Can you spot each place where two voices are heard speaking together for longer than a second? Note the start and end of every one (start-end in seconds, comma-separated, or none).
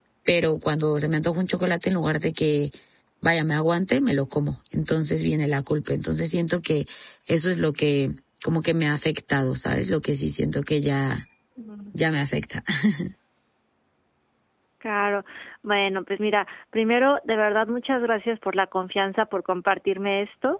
none